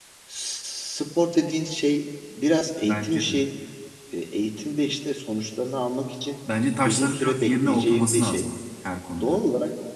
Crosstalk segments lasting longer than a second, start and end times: 6.8-8.5

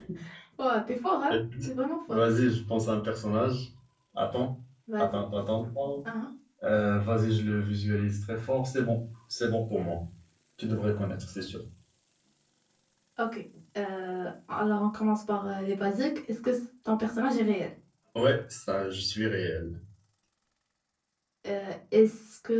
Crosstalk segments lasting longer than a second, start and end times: none

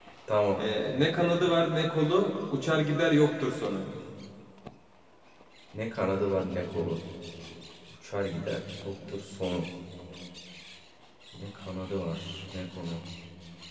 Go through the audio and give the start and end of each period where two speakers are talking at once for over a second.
none

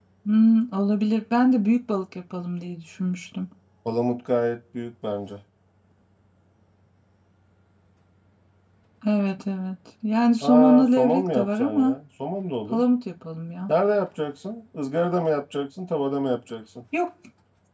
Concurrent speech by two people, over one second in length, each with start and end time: 10.4-12.0

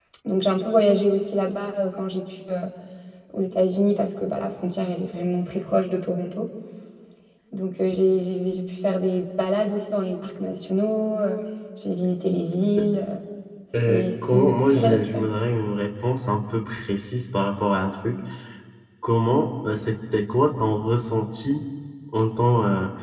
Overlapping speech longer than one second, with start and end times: 13.9-15.3

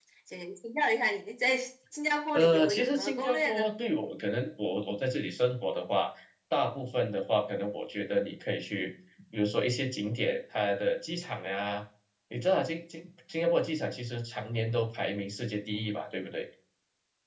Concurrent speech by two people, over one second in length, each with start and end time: 2.3-3.7

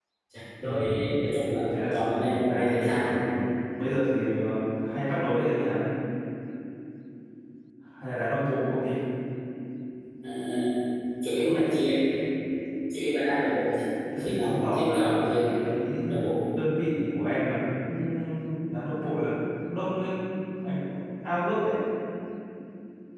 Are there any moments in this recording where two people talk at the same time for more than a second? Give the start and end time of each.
1.7-3.1, 14.2-15.5

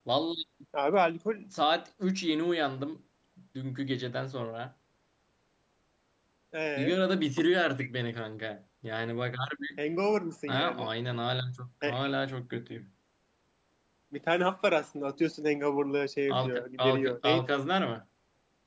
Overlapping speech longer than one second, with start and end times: 16.3-17.6

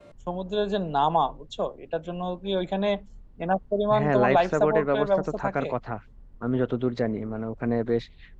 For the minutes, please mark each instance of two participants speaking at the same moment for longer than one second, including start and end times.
4.0-5.7

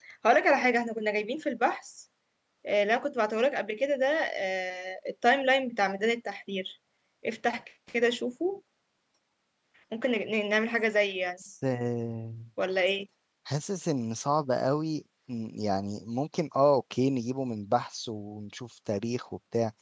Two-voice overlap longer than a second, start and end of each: none

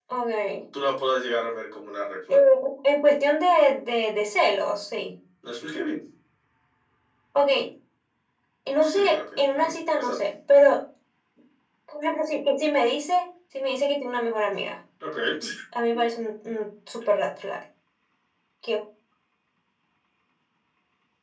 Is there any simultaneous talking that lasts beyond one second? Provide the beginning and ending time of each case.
8.8-10.2

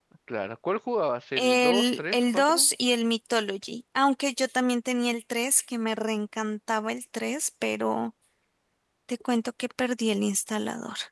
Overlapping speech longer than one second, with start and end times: 1.4-2.7

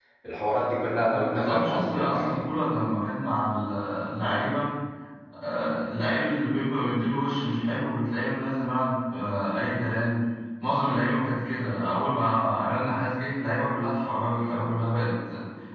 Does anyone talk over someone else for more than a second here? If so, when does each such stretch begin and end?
0.9-2.4

